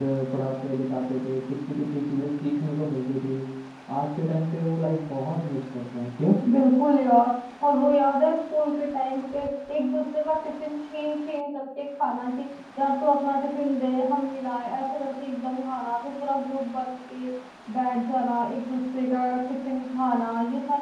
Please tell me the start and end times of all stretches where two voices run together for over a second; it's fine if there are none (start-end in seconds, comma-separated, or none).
none